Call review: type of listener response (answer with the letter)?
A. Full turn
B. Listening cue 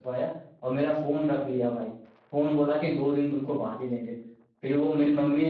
B